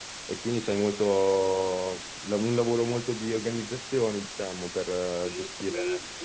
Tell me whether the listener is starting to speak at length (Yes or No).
Yes